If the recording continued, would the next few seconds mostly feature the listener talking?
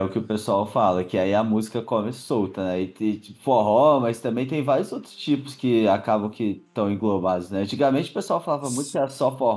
No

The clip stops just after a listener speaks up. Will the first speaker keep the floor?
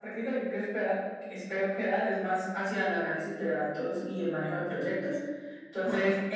Yes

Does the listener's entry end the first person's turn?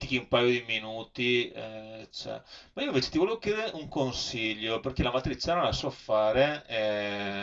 No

